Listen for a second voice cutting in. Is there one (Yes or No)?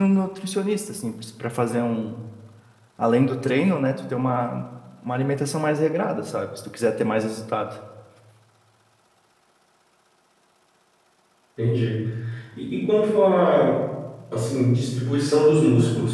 No